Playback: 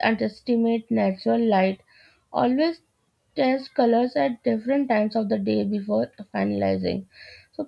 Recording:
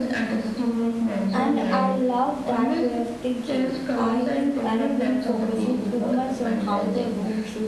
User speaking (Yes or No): Yes